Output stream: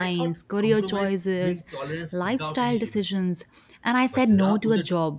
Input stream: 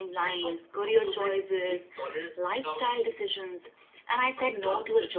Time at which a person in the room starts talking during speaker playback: none

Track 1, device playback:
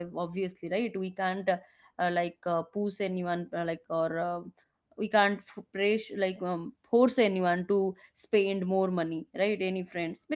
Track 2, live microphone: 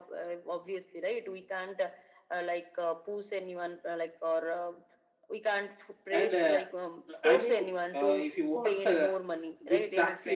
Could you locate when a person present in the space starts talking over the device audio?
6.1 s

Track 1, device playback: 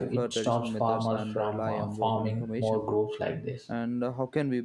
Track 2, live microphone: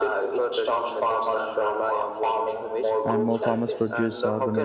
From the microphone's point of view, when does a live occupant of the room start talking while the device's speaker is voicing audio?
3.0 s

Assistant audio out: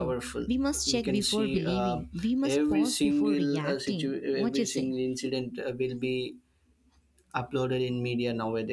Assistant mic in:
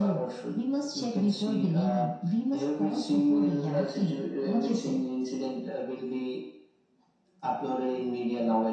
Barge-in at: none

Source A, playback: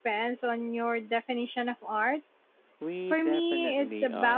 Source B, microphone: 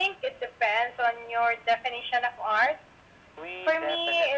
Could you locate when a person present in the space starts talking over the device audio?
none

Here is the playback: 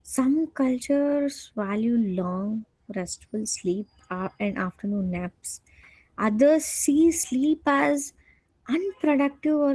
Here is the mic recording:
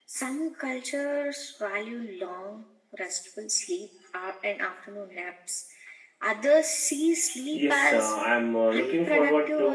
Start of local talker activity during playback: 7.5 s

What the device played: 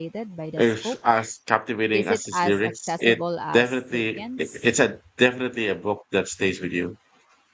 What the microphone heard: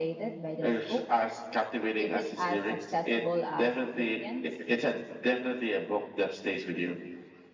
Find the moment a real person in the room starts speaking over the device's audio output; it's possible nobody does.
none

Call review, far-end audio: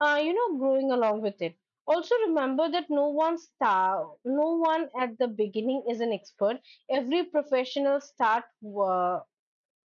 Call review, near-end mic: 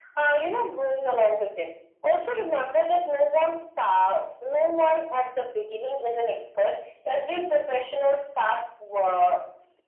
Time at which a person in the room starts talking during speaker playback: none

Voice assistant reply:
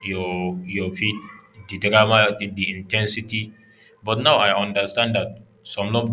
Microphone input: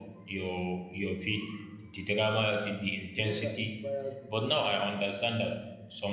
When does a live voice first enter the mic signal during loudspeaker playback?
3.1 s

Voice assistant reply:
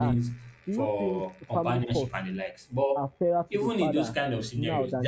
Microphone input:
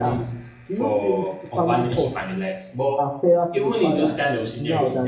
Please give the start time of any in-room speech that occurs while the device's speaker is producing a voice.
none

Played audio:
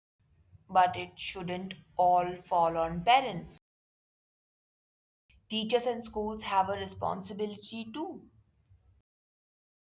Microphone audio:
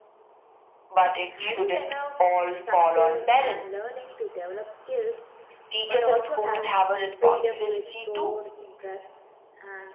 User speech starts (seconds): 1.3 s

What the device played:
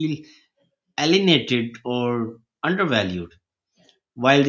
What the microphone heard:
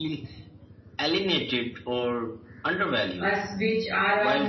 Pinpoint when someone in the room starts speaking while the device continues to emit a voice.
3.2 s

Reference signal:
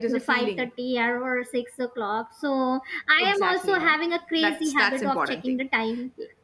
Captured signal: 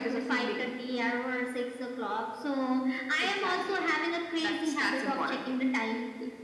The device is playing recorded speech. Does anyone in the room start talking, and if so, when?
none

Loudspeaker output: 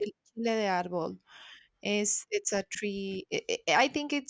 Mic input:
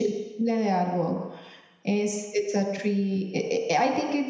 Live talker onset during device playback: none

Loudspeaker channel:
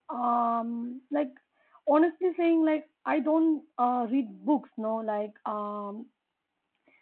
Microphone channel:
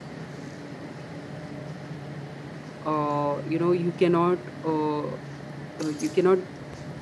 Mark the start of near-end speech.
2.8 s

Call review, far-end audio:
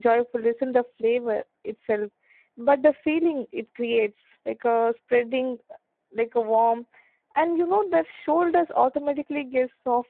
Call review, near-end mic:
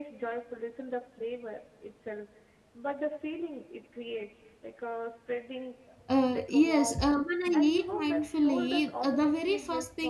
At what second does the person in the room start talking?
6.1 s

